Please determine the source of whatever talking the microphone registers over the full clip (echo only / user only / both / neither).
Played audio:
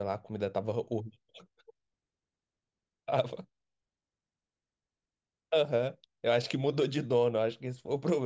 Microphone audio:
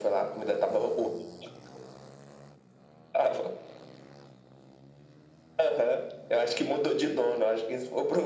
echo only